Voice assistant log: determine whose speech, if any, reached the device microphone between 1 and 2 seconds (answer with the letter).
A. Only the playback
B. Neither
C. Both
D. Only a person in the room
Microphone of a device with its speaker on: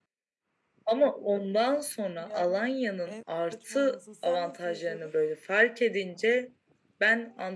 A